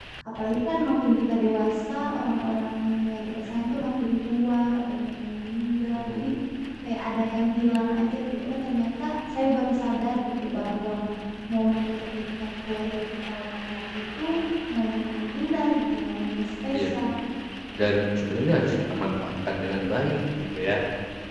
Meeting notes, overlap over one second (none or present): none